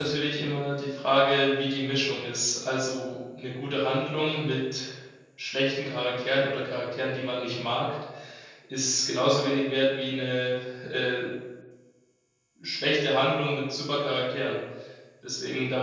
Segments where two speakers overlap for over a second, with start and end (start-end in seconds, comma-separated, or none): none